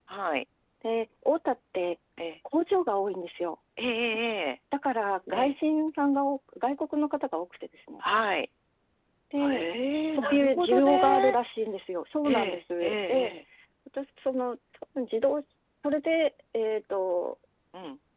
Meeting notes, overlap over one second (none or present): present